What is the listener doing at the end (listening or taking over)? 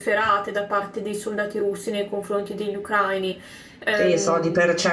taking over